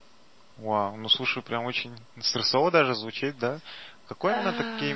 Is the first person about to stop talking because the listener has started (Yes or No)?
No